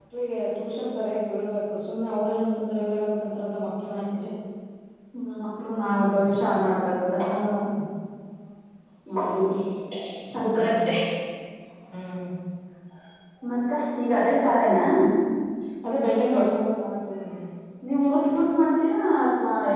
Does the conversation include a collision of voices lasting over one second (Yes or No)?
No